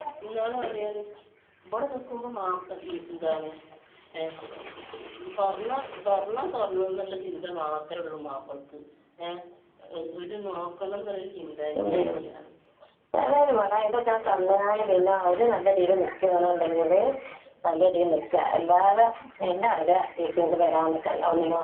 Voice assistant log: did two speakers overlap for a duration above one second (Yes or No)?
No